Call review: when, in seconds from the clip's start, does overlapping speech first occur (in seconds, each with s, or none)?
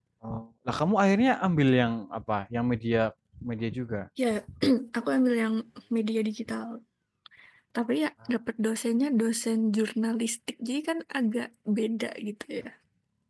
none